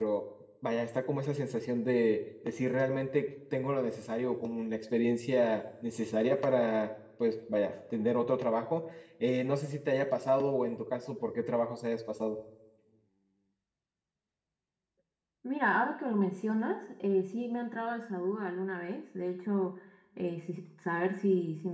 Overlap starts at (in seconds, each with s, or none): none